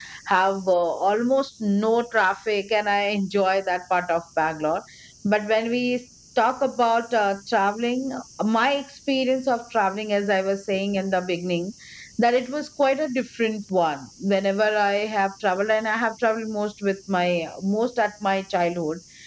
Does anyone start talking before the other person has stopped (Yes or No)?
No